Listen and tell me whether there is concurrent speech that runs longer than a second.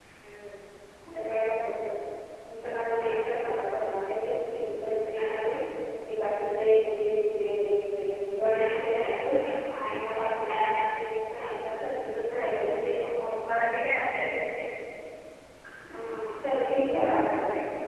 No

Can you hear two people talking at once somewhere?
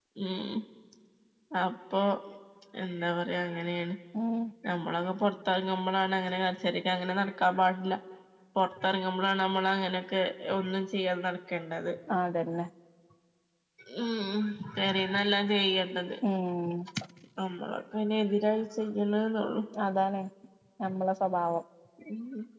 No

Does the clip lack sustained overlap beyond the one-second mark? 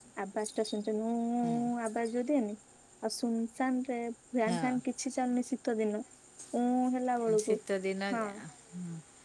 Yes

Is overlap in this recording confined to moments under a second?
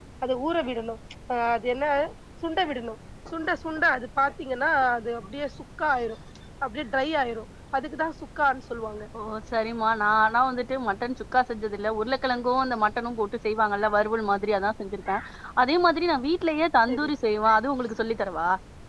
Yes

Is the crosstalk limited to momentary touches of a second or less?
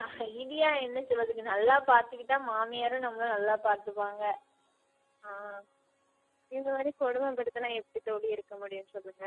Yes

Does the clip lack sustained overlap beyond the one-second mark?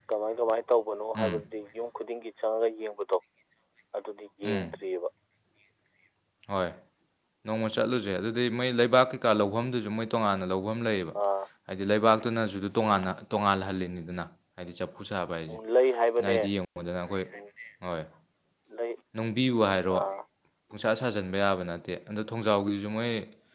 Yes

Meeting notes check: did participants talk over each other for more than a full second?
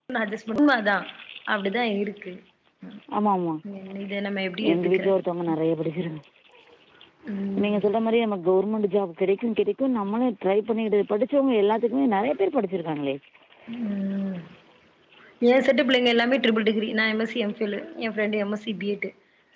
No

